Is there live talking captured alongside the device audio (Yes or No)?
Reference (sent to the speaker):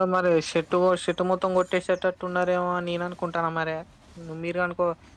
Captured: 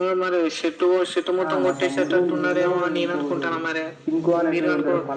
Yes